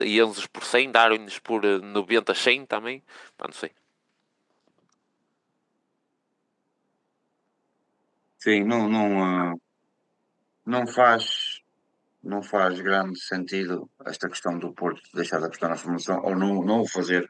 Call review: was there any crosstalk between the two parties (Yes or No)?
No